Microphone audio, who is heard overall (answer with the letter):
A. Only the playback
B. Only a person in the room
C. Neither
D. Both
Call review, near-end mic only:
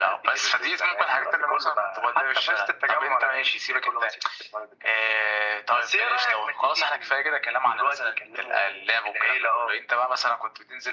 A